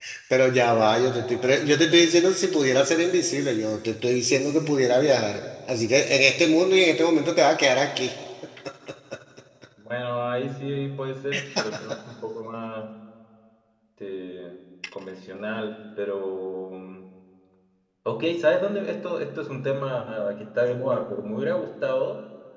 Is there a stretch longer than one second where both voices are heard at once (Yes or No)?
No